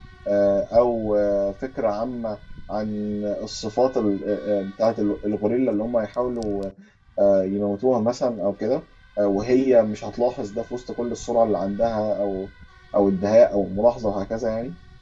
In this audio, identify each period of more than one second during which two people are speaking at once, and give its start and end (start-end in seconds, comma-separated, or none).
none